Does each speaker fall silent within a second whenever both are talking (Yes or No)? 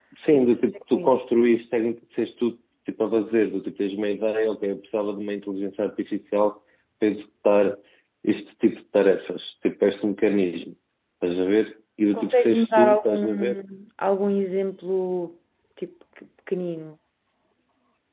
No